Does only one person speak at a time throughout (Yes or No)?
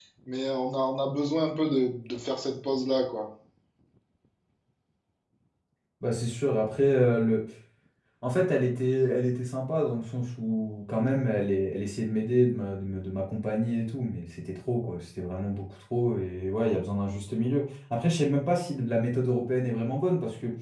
Yes